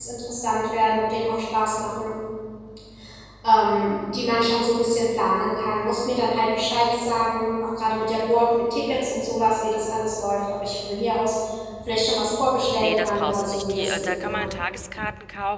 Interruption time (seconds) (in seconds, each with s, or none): 12.8 s